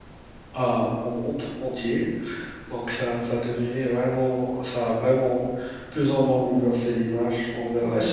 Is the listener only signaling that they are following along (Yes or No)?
No